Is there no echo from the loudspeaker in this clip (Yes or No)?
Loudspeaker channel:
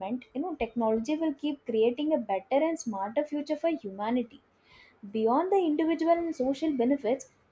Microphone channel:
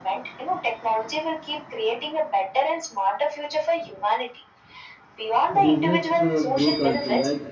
No